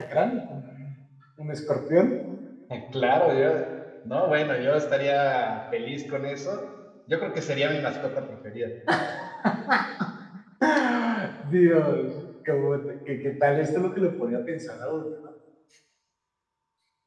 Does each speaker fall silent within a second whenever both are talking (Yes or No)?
Yes